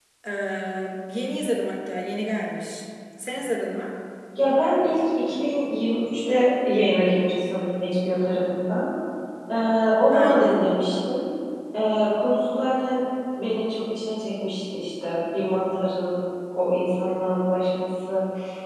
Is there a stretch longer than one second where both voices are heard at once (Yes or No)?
No